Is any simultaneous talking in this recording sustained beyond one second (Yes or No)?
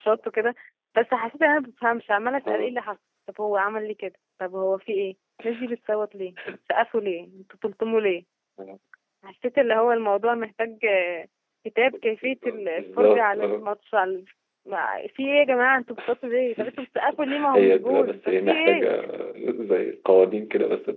Yes